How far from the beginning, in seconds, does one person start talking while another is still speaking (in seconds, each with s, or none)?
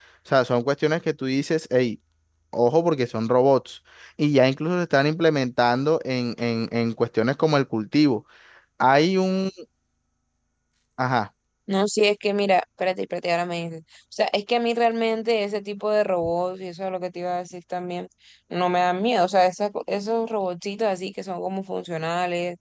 none